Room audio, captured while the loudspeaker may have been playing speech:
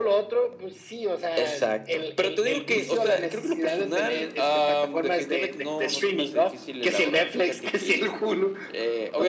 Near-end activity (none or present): none